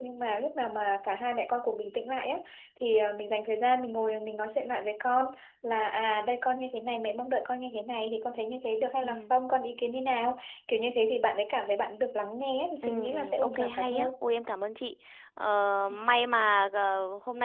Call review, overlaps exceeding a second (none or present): present